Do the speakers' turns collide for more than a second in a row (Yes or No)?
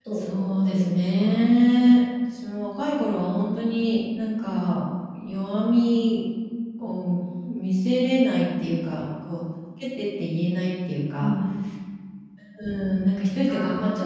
Yes